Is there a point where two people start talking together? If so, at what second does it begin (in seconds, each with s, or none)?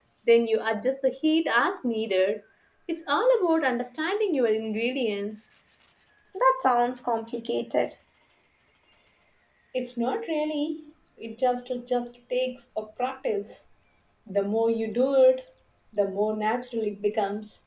none